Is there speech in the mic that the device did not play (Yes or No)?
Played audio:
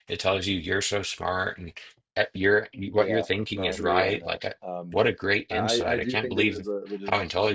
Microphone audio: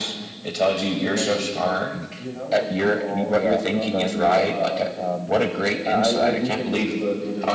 Yes